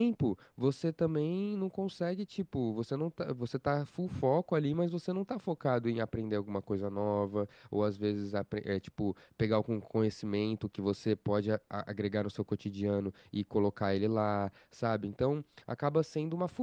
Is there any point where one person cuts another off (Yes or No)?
No